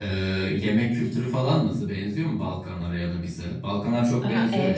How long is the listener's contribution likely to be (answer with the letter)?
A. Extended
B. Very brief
A